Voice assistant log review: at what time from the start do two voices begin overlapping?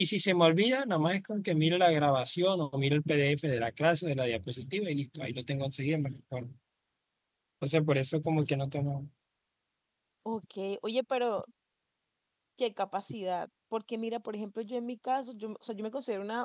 none

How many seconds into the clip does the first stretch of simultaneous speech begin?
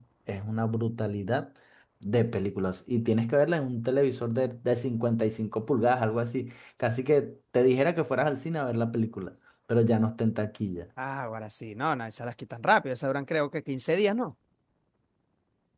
none

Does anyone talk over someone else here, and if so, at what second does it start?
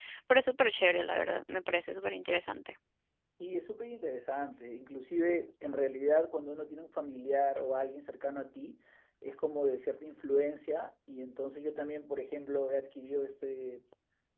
none

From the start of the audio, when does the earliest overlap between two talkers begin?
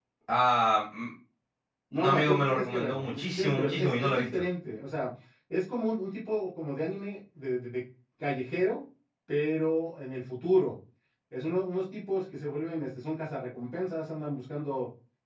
2 s

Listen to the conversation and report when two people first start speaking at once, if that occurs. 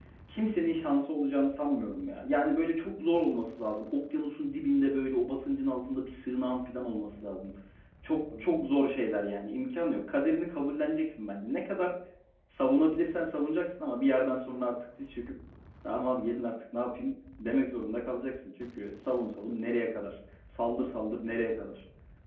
none

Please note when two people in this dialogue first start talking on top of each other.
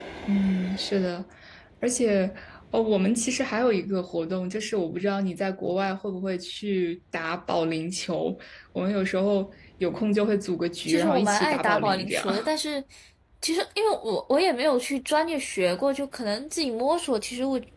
11 s

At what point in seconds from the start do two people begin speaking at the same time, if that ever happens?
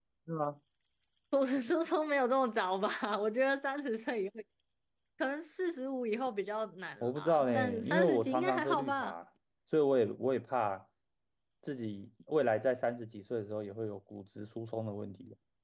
7 s

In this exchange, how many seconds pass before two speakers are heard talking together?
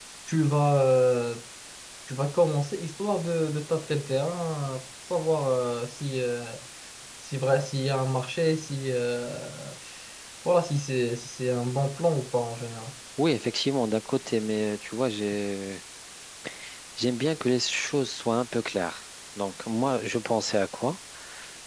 none

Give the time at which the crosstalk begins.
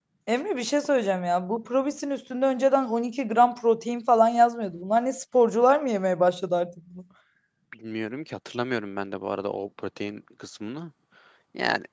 none

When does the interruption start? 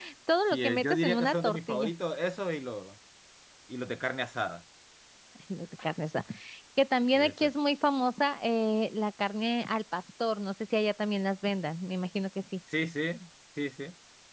1 s

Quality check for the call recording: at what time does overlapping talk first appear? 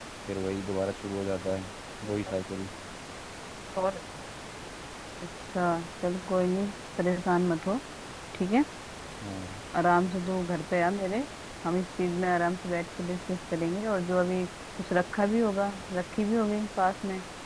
none

